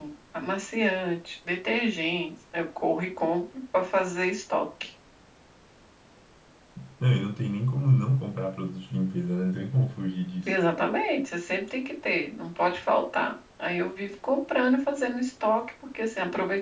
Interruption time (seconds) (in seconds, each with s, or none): none